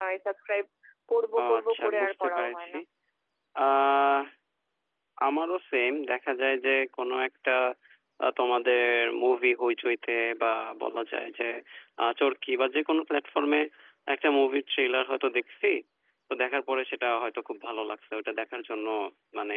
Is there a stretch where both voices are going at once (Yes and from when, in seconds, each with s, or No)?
Yes, from 1.4 s